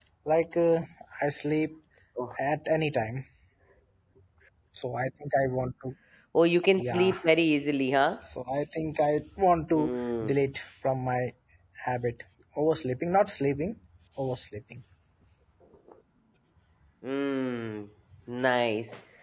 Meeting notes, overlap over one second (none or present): none